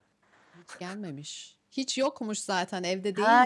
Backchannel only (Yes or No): No